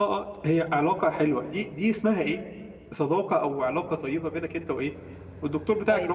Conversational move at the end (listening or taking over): taking over